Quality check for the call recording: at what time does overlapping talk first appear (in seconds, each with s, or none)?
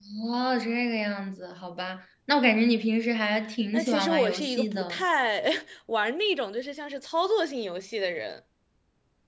3.7 s